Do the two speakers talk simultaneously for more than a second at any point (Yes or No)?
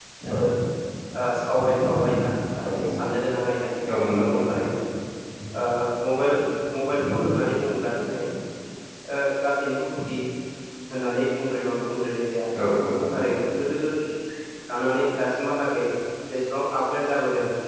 No